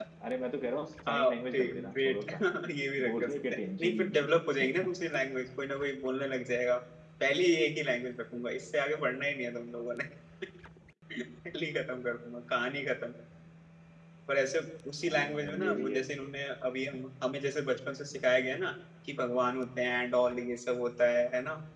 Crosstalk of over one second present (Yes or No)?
Yes